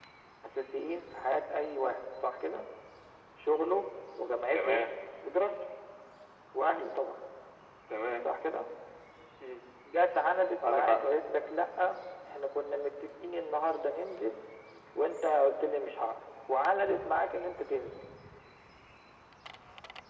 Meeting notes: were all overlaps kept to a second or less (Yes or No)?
Yes